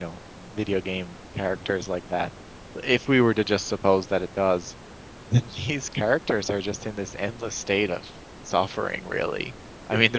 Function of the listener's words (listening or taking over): listening